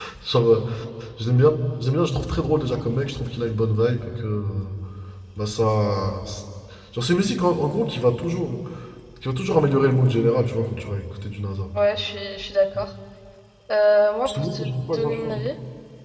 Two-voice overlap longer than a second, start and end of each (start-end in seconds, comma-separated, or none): 14.2-15.5